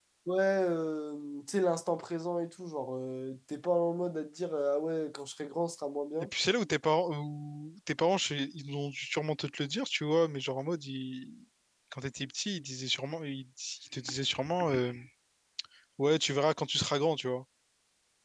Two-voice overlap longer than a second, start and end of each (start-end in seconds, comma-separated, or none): none